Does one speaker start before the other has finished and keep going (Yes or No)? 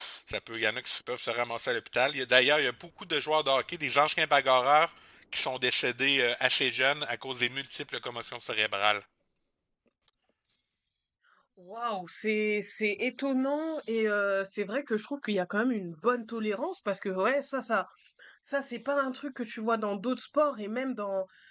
No